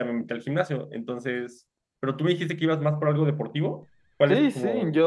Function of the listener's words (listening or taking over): taking over